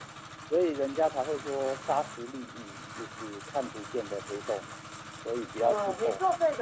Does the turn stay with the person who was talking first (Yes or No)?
No